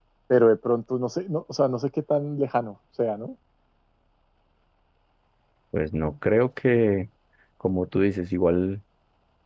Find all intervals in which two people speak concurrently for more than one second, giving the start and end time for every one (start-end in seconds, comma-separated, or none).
none